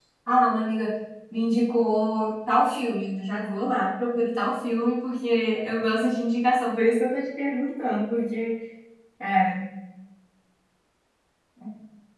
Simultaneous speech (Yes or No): No